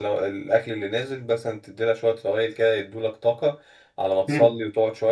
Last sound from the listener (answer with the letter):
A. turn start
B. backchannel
B